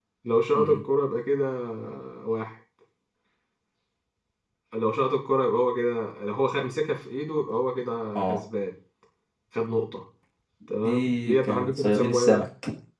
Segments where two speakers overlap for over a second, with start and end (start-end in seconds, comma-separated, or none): 10.8-12.4